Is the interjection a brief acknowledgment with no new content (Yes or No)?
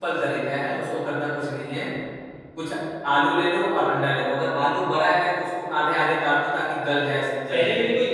No